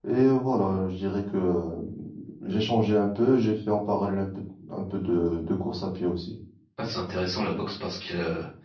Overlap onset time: none

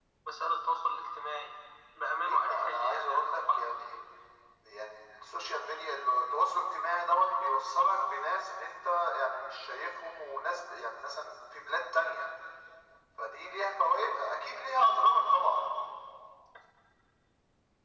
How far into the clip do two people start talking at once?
2 s

